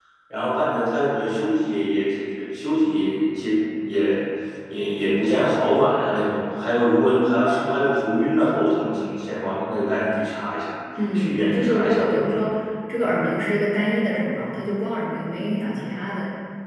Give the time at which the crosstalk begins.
11.0 s

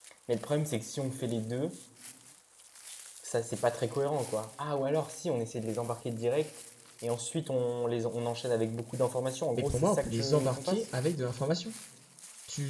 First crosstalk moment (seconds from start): 9.6 s

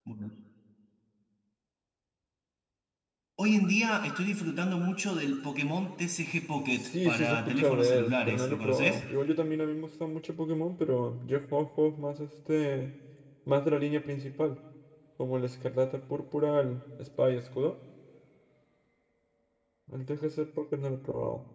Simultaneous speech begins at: 6.7 s

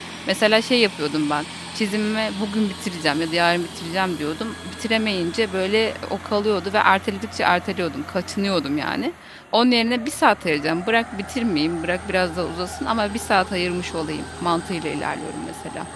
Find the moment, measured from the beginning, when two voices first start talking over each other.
none

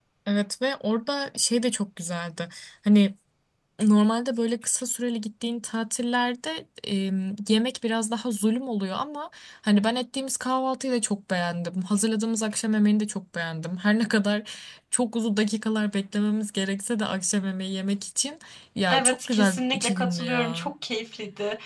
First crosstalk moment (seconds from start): 18.9 s

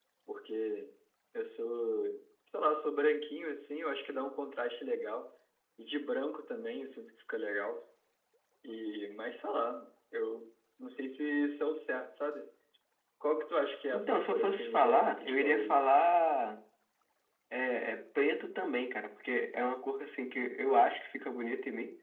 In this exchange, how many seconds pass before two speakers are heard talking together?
13.9 s

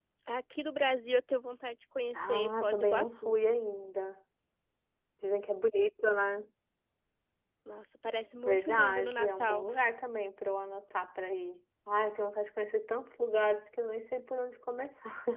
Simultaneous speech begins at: 2.1 s

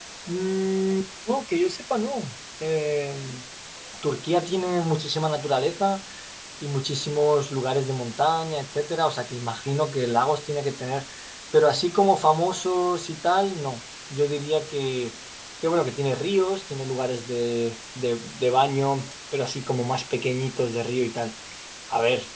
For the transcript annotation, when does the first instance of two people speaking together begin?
none

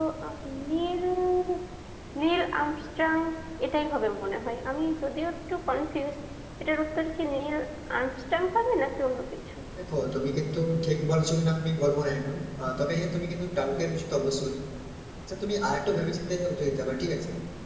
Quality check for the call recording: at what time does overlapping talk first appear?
none

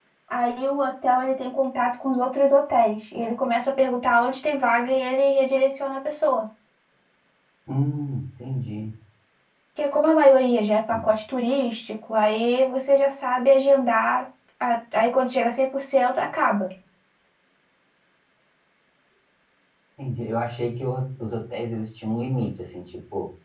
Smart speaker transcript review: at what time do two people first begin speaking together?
none

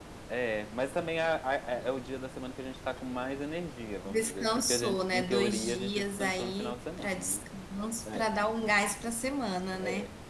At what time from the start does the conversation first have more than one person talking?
4.0 s

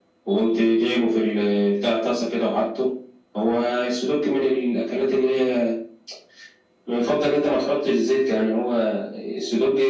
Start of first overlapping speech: none

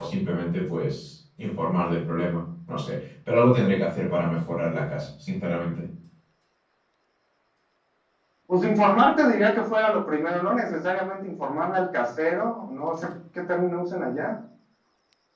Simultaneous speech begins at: none

